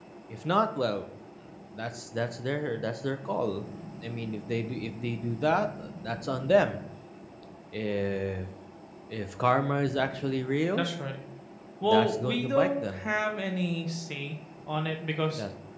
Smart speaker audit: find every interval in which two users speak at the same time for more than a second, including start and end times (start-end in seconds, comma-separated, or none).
11.8-13.0